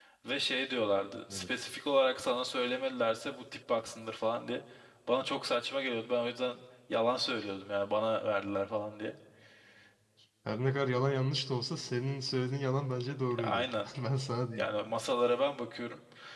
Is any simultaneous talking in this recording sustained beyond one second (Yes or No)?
No